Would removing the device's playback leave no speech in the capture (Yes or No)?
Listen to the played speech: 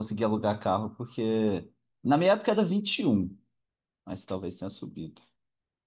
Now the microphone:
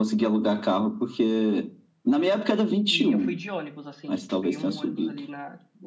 No